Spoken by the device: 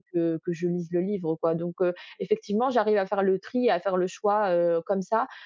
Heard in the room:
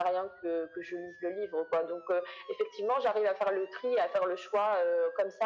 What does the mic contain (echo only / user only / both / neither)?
echo only